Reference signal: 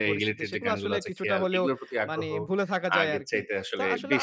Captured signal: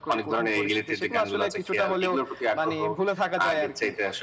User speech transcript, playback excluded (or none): none